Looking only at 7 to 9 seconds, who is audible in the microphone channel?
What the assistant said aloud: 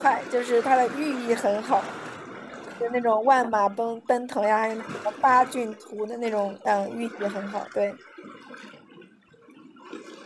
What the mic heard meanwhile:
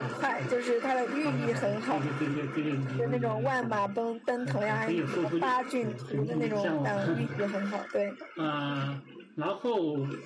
both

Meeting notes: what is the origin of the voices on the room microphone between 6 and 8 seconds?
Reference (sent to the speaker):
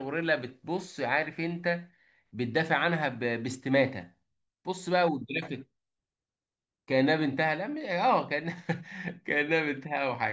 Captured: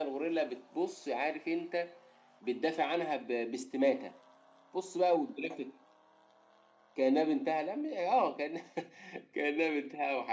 echo only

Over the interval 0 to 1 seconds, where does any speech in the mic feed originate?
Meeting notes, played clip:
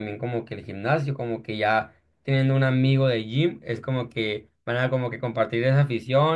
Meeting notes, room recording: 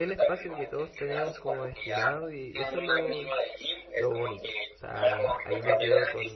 both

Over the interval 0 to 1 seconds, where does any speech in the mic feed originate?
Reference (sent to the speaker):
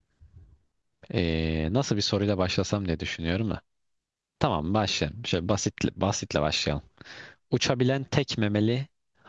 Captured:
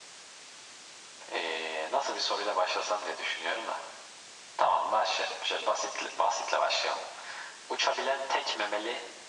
neither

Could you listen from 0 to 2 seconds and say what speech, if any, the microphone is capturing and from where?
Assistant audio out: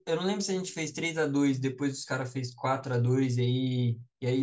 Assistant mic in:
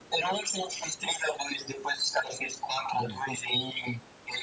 echo only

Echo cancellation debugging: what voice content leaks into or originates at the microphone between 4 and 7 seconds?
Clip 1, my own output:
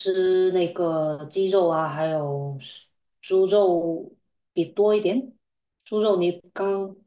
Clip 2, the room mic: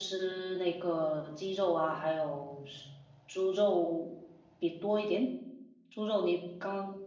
echo only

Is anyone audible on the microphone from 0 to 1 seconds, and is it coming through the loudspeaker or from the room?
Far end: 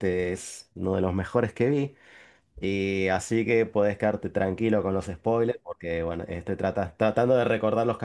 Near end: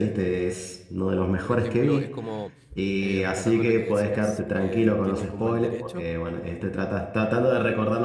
echo only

